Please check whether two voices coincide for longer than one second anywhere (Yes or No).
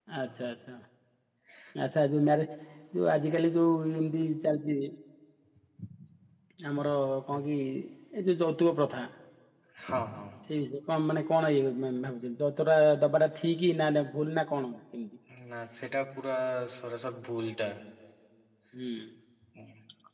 No